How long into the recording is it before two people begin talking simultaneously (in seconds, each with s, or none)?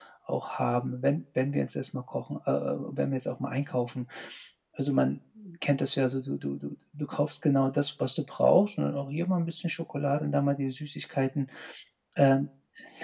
none